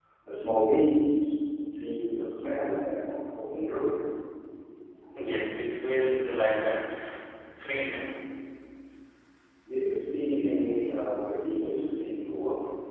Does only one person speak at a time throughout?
Yes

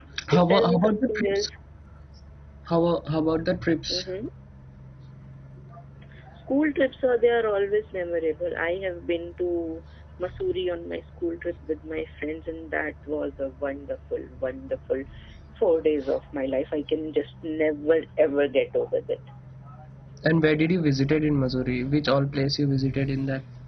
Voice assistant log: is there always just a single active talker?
No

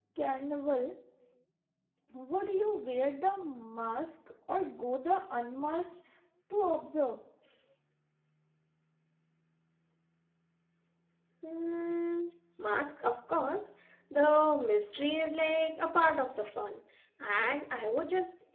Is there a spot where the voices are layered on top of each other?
No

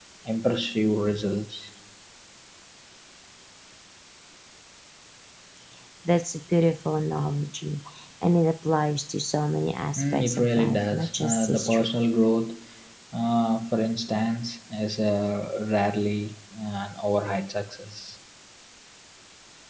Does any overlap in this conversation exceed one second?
Yes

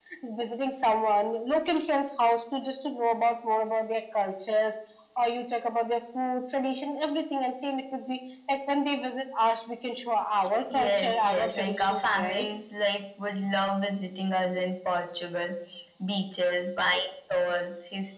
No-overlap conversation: No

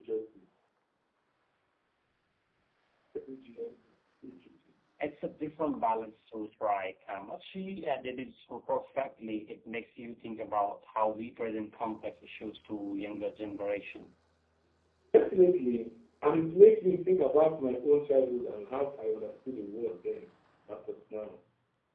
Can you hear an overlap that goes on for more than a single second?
No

